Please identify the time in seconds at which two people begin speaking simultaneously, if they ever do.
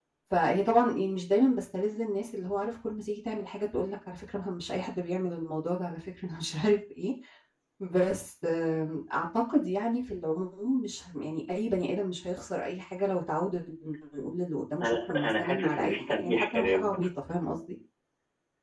14.8 s

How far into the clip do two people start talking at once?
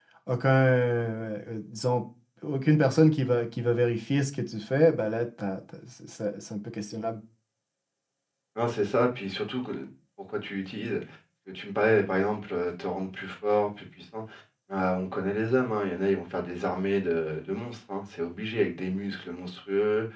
none

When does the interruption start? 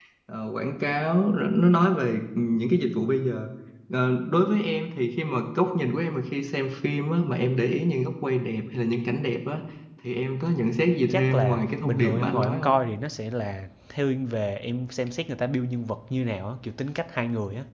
11.1 s

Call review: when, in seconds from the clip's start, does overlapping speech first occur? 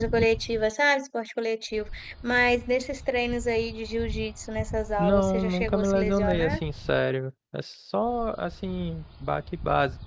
5.0 s

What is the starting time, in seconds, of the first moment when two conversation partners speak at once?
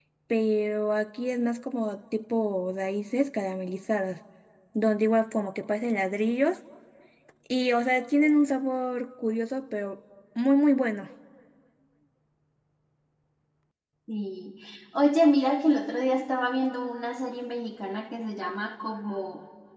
none

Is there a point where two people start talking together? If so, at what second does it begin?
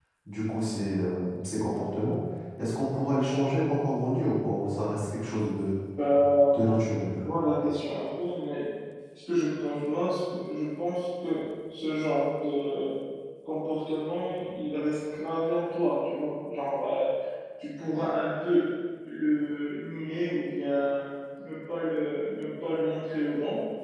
none

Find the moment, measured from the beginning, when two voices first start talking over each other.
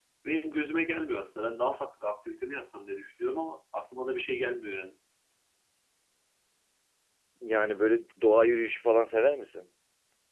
none

